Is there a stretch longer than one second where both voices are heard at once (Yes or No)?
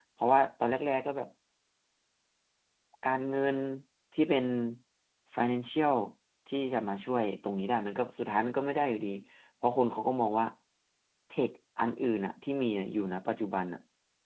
No